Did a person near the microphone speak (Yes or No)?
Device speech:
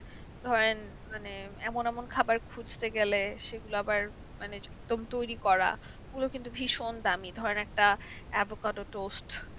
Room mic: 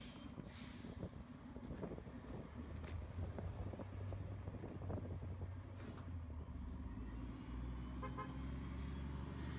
No